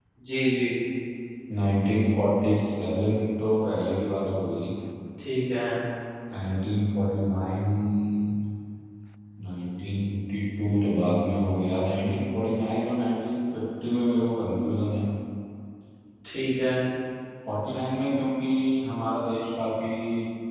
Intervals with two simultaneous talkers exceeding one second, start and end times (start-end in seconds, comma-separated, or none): none